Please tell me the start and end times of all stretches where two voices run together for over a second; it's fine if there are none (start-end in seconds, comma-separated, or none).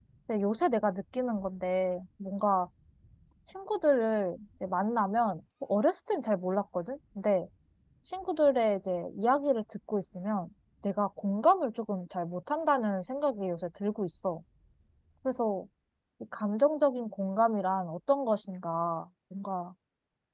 none